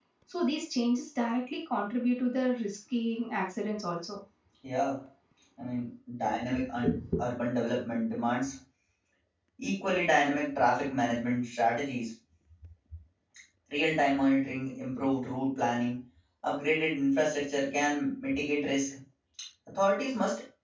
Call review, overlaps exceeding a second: none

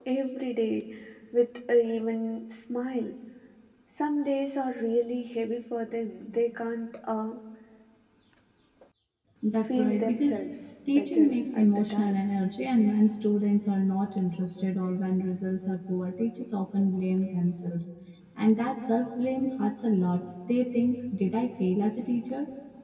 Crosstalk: present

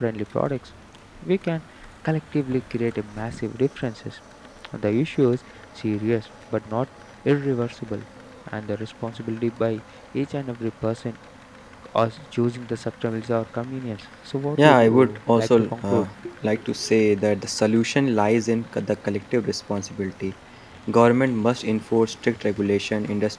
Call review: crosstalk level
present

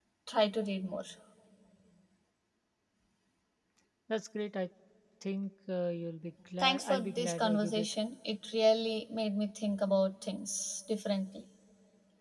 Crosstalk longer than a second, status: present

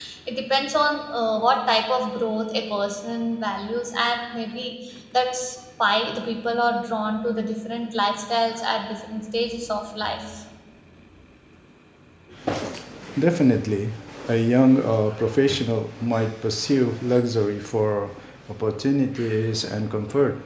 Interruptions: none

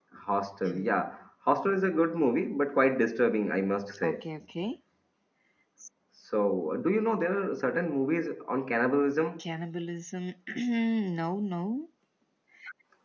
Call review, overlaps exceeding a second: none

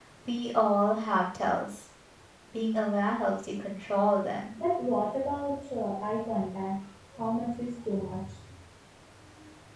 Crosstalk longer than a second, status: none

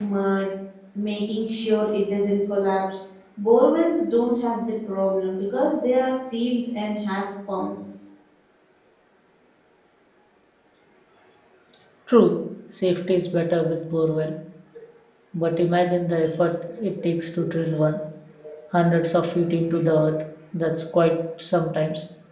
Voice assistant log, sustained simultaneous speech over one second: none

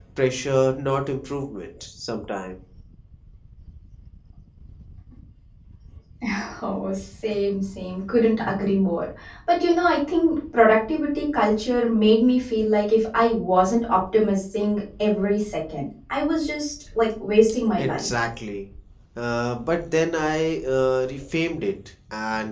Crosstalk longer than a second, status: none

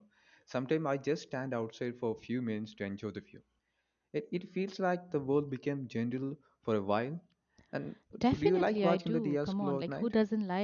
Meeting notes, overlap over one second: present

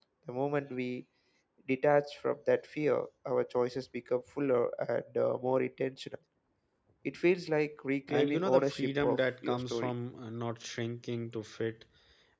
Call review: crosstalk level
present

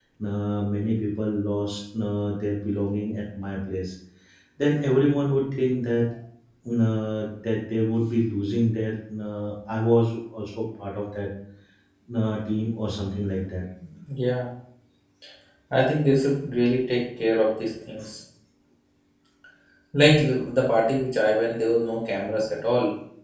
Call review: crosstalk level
none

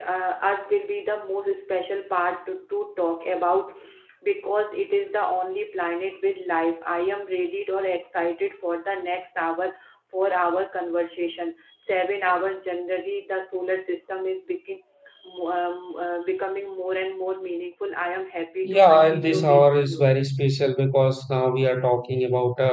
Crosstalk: present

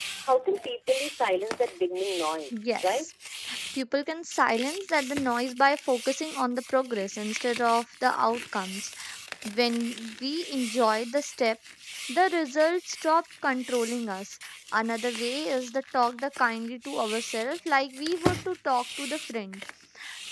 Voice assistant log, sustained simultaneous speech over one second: none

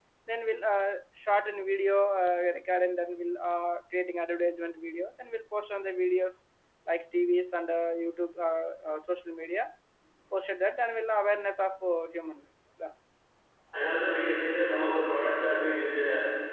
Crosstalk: none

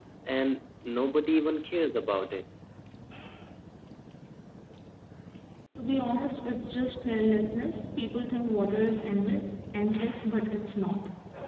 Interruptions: none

